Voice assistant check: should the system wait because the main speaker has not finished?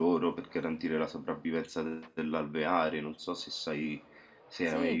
No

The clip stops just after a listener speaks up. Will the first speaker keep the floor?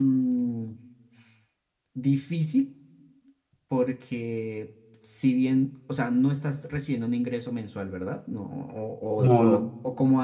Yes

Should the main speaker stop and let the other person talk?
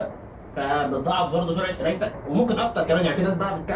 No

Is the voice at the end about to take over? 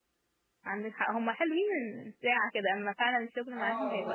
Yes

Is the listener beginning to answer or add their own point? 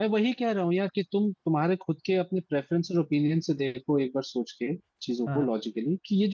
No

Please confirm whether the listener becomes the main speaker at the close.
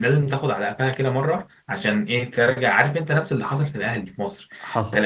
No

